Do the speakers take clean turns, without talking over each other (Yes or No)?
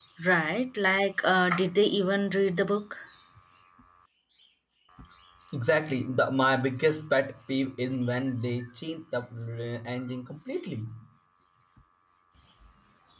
Yes